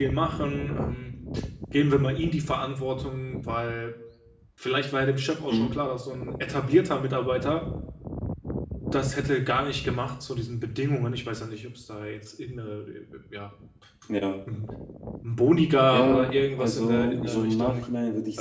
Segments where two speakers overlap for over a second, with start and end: 15.9-17.8

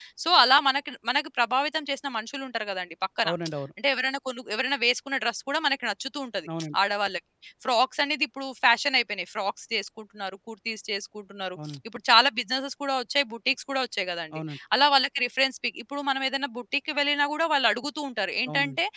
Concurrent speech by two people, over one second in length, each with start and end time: none

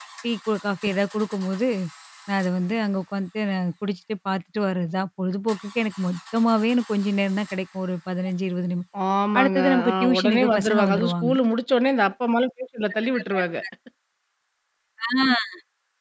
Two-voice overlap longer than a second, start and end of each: 9.4-11.3

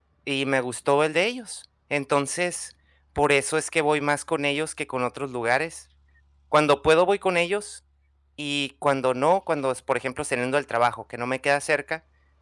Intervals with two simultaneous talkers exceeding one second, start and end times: none

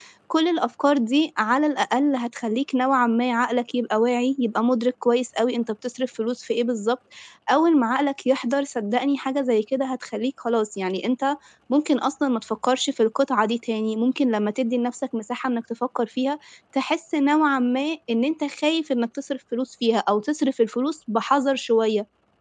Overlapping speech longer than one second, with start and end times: none

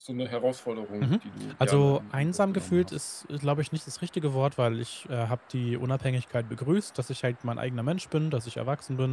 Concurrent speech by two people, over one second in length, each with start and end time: 1.6-3.0

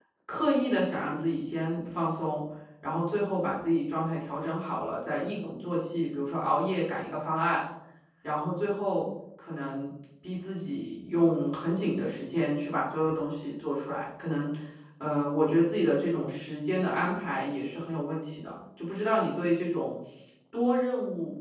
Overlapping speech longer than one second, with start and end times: none

